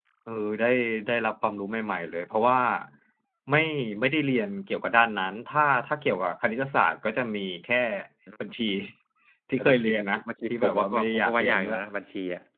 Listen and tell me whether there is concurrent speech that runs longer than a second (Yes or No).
Yes